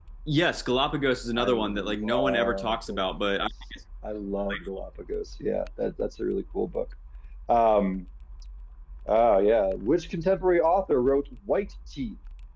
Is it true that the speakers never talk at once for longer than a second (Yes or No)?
No